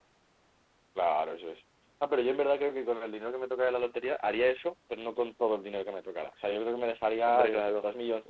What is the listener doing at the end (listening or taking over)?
listening